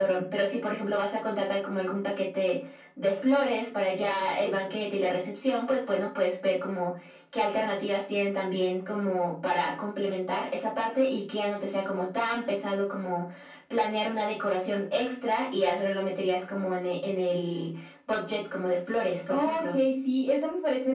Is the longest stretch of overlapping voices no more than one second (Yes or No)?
Yes